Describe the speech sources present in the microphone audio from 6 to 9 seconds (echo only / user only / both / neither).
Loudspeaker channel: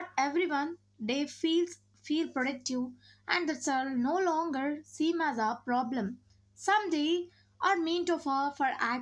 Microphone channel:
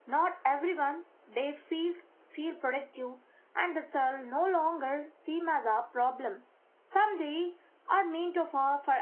echo only